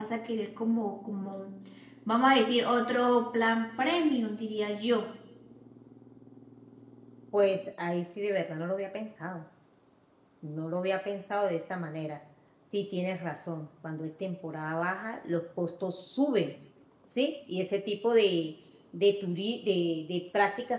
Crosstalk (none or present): none